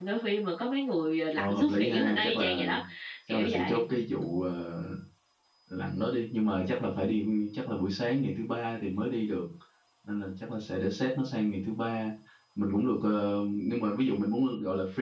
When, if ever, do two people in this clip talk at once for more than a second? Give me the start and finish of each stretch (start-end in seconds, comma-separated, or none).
1.4-2.7